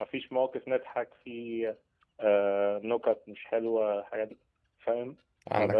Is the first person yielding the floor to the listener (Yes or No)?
No